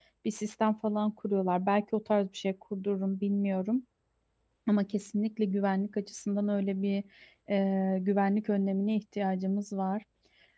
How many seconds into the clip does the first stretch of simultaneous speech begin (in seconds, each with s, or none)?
none